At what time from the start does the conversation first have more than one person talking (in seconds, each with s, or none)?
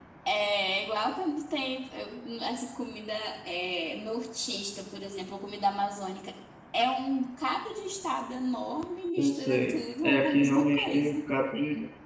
9.2 s